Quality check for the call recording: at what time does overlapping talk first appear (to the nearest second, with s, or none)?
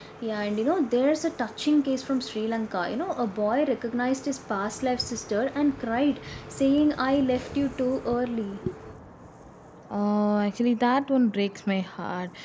none